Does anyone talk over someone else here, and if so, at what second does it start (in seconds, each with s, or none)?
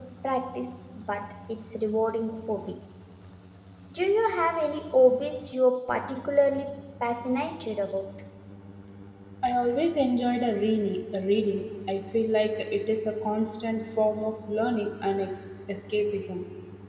none